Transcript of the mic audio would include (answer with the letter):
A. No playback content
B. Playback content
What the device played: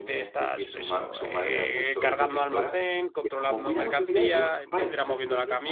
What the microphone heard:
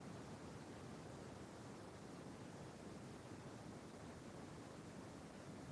A